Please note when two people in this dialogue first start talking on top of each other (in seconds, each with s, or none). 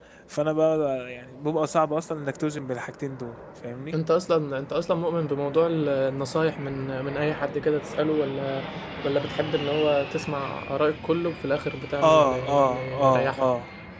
12.0 s